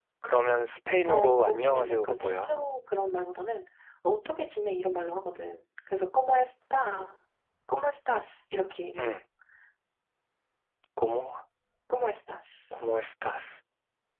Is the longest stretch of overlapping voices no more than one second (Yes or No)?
No